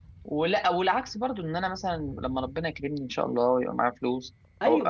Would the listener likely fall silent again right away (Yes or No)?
Yes